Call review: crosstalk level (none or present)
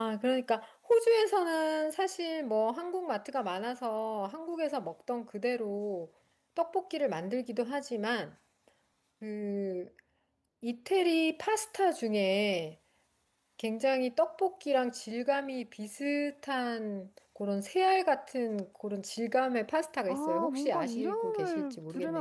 present